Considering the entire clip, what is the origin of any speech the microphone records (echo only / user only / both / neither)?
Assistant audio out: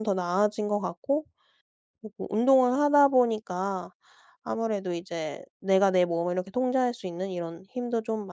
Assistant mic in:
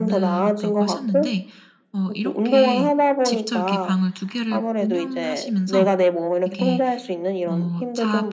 both